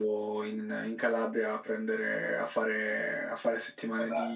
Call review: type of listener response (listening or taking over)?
listening